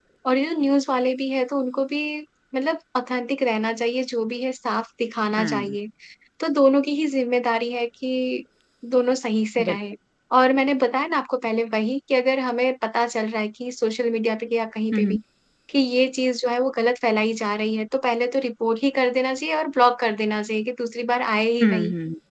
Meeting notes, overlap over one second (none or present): none